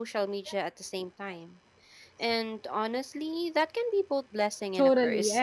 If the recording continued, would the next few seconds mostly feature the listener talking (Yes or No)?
Yes